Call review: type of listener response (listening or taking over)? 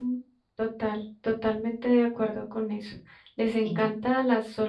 listening